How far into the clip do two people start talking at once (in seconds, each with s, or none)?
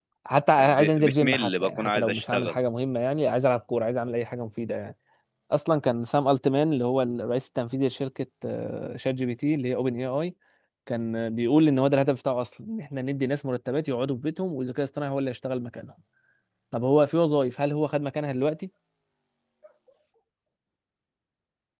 0.6 s